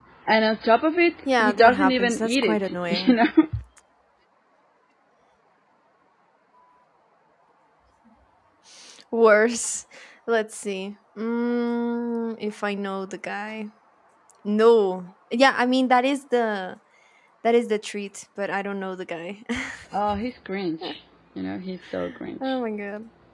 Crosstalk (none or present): present